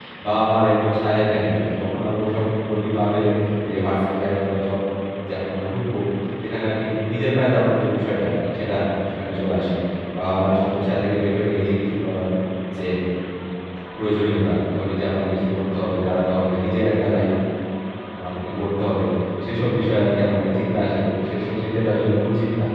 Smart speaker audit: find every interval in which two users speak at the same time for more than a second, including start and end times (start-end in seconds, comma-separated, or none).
none